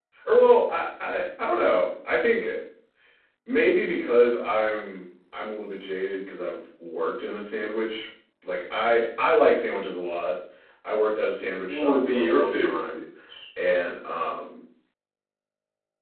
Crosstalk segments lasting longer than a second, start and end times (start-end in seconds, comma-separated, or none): 11.7-13.0